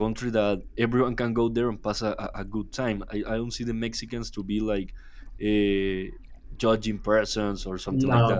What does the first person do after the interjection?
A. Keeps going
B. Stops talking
B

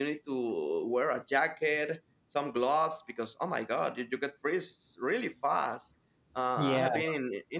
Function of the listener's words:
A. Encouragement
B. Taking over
A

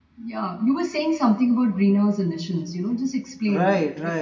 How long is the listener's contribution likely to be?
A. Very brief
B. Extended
B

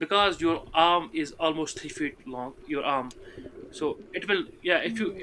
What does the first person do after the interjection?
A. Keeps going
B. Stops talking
A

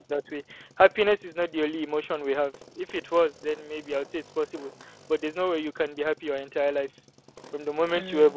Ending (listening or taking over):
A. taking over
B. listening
B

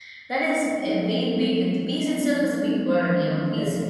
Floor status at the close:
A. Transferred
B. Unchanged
B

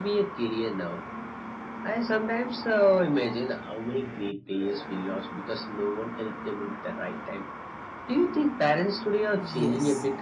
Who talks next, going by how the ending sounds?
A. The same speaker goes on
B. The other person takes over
B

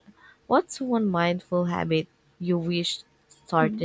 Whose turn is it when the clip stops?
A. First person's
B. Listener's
B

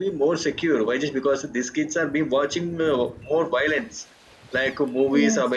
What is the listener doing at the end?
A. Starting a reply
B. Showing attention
B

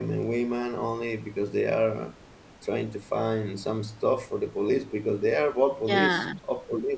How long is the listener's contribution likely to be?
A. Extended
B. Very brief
B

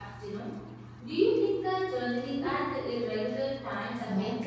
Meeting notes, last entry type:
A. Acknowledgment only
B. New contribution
B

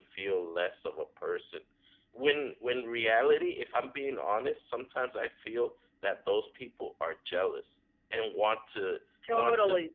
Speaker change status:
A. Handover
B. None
B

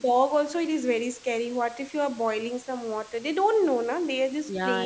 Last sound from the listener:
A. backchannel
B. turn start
B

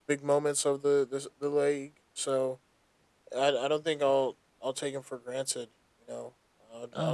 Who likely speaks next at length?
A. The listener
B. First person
A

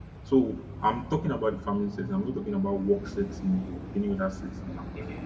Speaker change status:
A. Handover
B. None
B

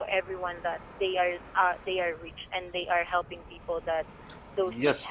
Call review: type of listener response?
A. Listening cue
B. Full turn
B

